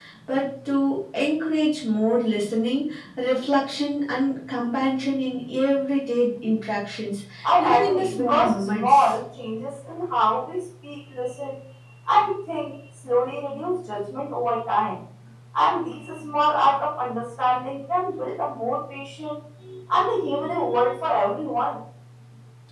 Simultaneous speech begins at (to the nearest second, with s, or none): 7 s